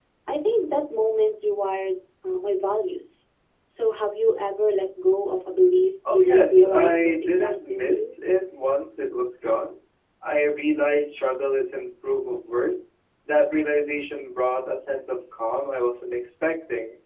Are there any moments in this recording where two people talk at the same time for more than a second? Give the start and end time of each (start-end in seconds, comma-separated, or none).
6.1-8.1